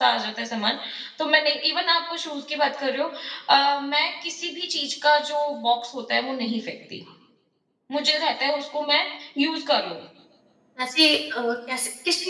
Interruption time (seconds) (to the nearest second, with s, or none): none